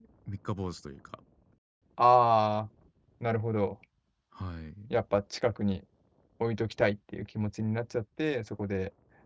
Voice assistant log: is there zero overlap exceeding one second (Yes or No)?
Yes